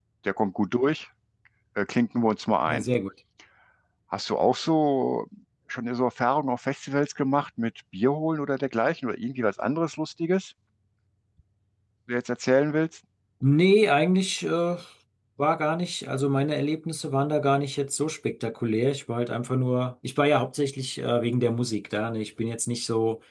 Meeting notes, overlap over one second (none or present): none